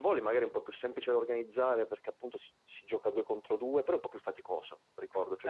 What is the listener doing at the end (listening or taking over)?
listening